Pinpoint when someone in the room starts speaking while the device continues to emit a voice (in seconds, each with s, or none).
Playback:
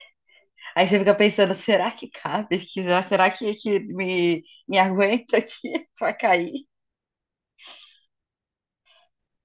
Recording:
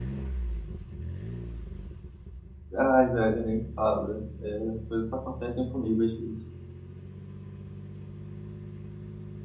2.7 s